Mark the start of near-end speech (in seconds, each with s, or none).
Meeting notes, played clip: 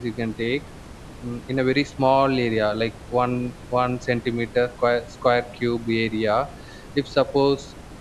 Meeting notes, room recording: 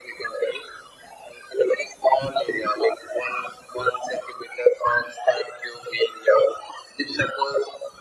none